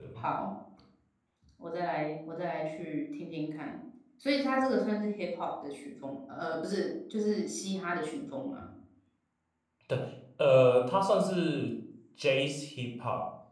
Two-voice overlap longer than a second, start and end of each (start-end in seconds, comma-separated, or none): none